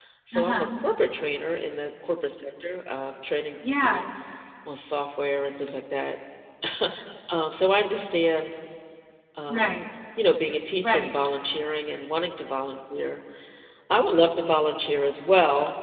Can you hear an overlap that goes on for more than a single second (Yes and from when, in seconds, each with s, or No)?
No